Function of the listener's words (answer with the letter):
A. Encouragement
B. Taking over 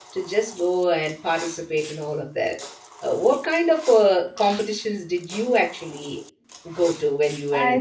B